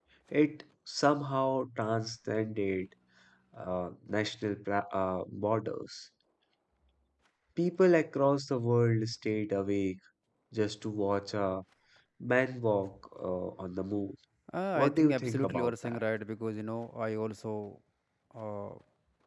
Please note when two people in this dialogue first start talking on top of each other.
15 s

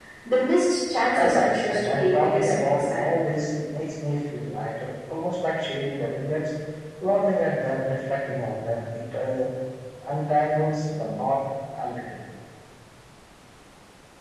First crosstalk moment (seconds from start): 1 s

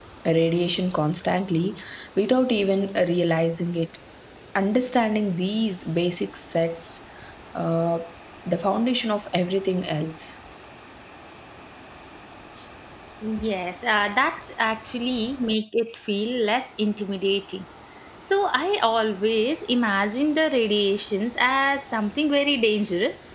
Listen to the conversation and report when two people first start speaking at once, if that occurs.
none

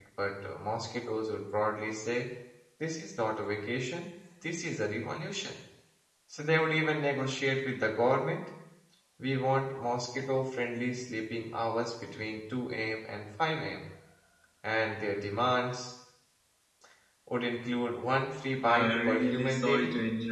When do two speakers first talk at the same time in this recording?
19 s

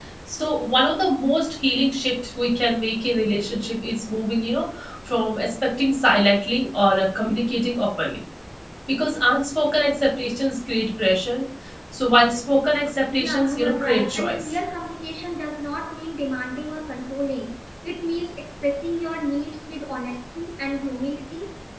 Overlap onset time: 13 s

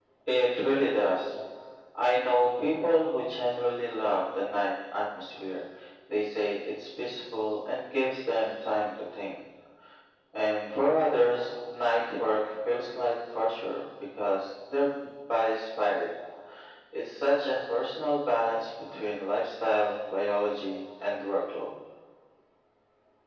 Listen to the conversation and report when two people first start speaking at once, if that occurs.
none

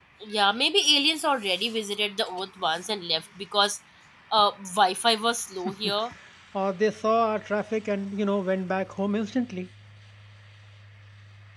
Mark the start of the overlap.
none

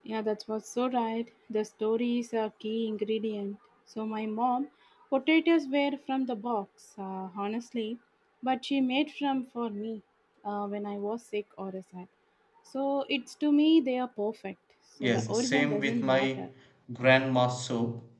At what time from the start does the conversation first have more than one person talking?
15 s

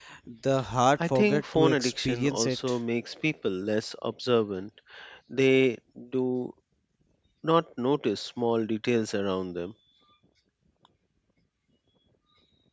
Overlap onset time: 1 s

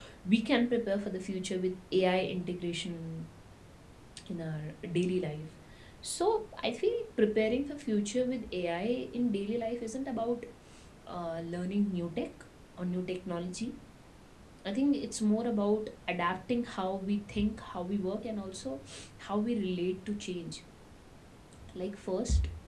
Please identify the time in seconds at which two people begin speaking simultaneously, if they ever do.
none

